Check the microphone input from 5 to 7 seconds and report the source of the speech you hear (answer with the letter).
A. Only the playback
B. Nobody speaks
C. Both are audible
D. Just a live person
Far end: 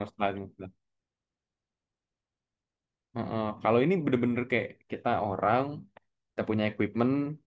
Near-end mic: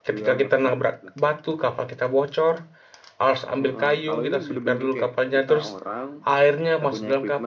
C